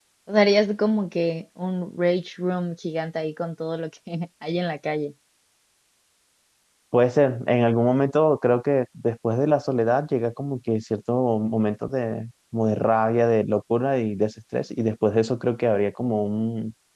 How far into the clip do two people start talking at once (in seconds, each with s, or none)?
none